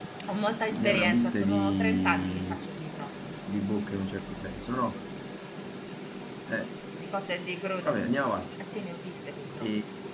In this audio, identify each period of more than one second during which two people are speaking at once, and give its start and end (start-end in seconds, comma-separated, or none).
0.7-2.5